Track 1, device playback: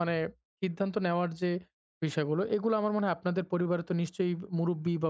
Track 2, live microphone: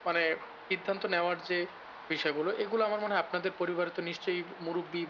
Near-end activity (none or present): none